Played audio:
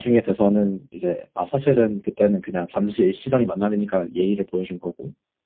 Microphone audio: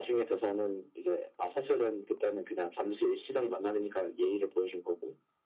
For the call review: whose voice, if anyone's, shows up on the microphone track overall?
echo only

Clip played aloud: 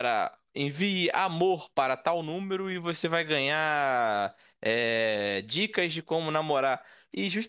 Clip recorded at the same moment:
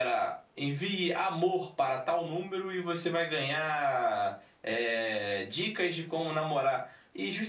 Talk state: echo only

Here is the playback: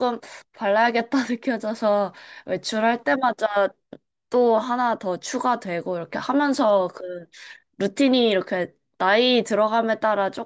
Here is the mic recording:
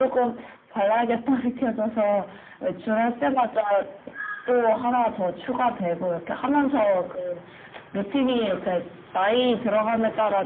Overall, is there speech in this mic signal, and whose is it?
echo only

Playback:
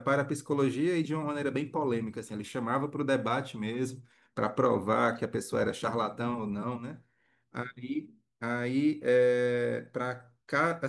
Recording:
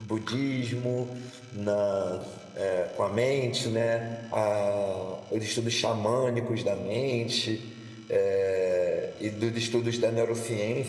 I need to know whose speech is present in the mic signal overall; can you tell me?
user only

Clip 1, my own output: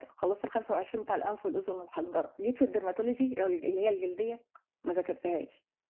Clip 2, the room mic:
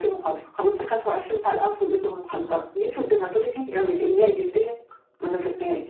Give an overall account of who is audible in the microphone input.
both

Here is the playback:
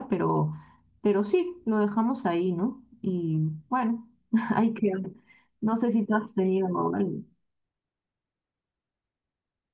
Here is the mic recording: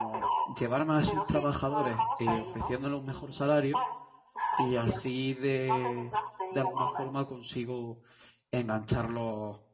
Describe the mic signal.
both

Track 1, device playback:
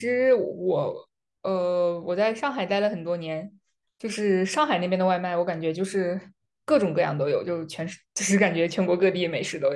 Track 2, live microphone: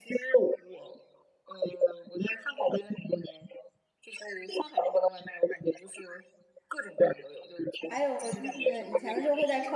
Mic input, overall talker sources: both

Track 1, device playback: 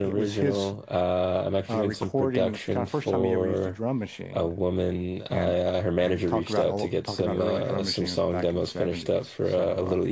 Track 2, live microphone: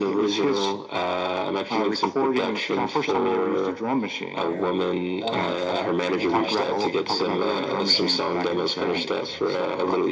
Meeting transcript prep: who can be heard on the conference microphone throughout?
both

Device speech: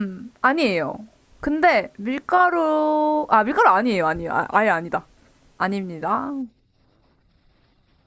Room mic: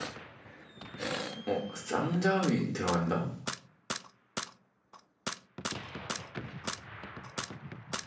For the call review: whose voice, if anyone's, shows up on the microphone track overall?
user only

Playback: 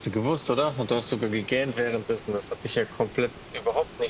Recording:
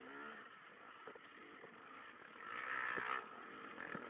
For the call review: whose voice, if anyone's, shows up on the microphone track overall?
neither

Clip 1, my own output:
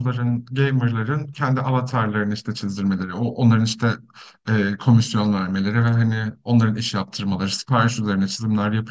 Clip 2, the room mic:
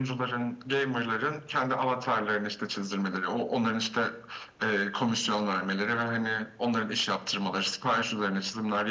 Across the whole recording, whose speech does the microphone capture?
echo only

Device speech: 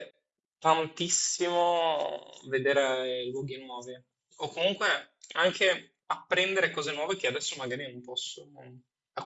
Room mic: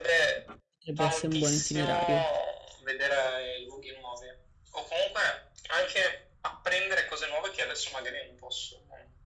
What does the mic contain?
both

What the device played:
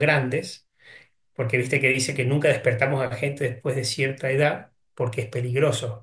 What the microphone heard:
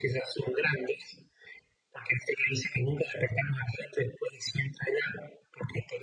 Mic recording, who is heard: echo only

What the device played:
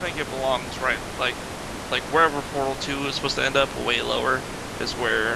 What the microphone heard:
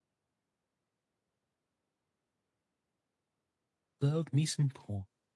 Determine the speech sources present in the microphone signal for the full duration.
user only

